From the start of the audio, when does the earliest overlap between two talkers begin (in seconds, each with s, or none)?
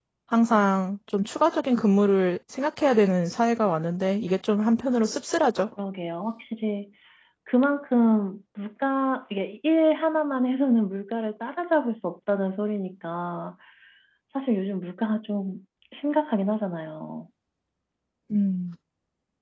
none